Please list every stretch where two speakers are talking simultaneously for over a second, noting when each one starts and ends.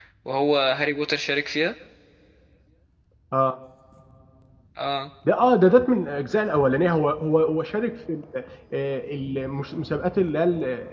none

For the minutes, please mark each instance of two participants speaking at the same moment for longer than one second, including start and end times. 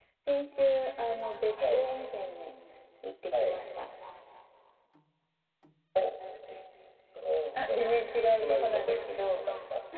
7.5-9.4

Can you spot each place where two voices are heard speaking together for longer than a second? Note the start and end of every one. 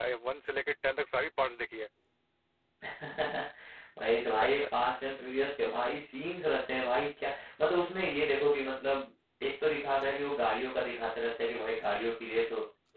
none

